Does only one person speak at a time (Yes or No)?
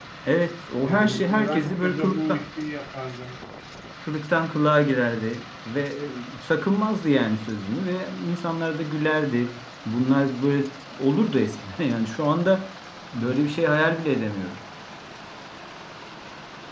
No